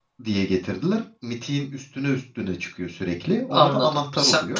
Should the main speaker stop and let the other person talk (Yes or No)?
Yes